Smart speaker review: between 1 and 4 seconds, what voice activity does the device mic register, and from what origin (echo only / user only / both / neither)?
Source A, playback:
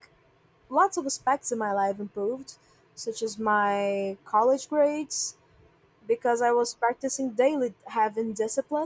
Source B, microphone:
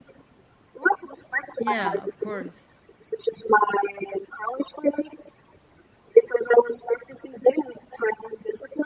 both